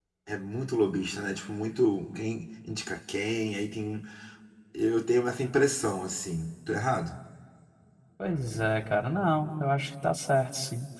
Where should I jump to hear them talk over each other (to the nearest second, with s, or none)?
none